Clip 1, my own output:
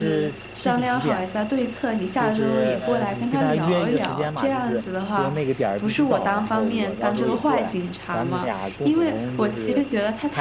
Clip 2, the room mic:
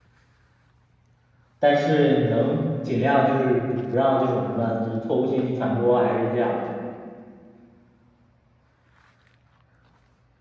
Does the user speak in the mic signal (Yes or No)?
Yes